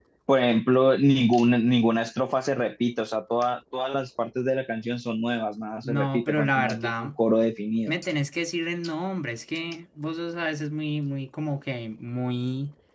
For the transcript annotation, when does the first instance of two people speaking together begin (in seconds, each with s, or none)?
5.8 s